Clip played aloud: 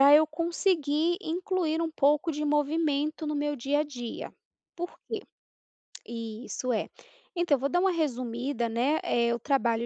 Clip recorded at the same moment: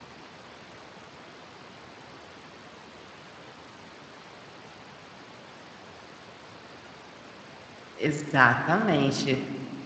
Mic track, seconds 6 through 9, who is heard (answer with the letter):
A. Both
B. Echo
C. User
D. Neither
C